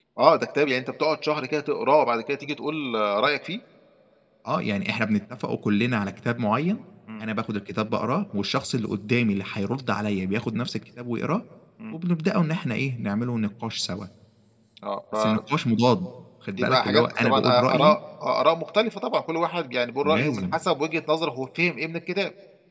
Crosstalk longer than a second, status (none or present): present